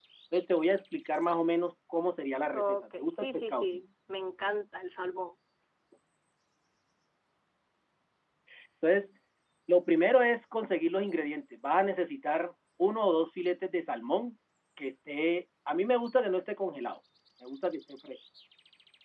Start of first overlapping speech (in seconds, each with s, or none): 2.5 s